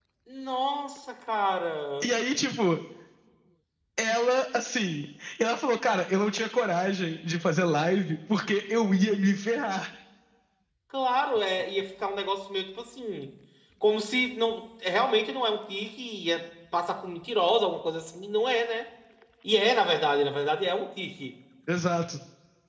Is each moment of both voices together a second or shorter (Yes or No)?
Yes